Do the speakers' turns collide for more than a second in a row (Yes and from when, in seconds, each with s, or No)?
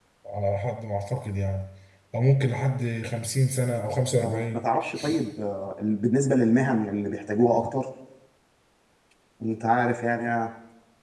No